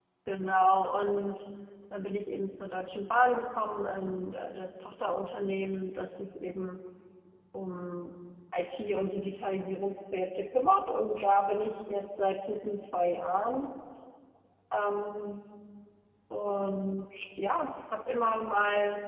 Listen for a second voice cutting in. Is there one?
No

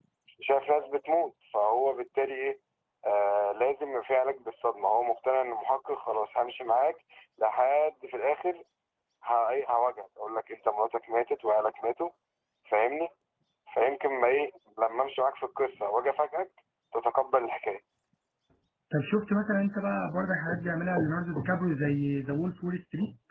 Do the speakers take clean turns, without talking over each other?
Yes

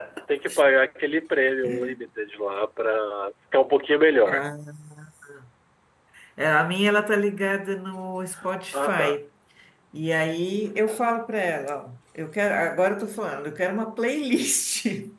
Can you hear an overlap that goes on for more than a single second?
No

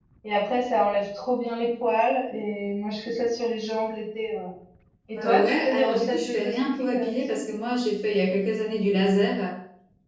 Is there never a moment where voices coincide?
No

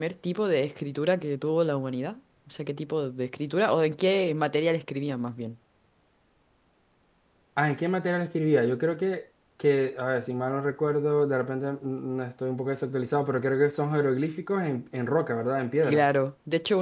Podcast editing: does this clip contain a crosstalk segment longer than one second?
No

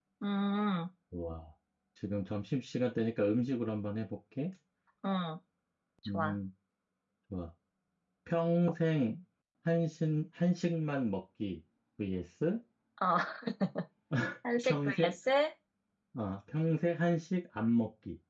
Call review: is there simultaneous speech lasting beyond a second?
No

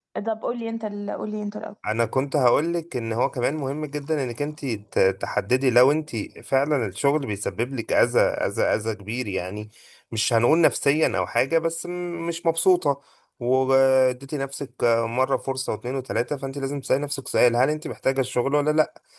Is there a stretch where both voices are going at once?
No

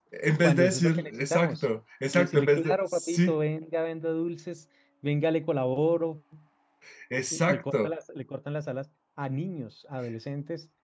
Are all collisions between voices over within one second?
No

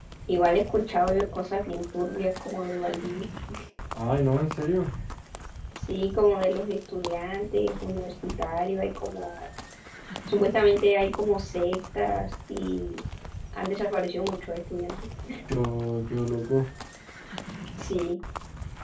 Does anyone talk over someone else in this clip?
No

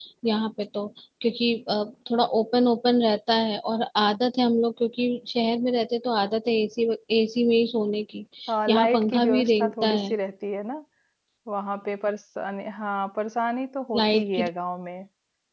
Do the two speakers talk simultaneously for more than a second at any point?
Yes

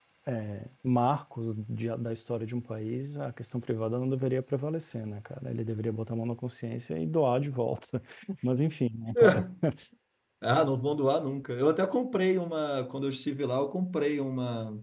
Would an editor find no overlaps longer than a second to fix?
Yes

